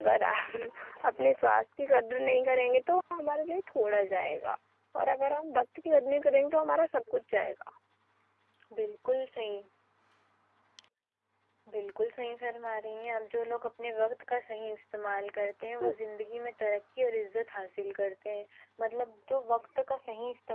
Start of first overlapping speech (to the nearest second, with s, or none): none